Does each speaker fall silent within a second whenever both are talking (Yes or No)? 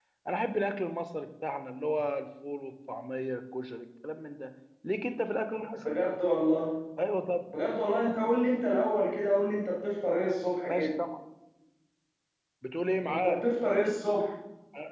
Yes